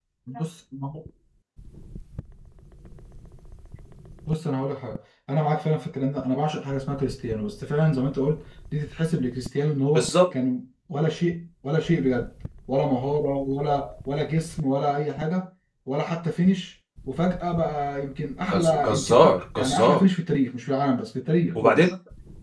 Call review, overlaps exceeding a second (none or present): present